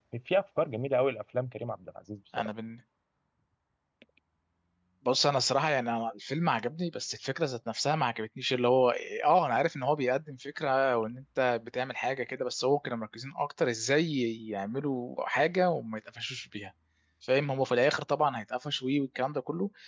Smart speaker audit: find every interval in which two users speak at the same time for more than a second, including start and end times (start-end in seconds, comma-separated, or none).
none